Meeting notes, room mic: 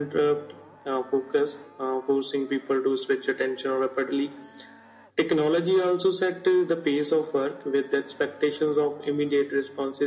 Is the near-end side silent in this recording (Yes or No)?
Yes